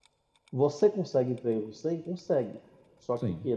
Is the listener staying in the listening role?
Yes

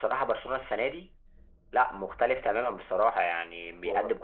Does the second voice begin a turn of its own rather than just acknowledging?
No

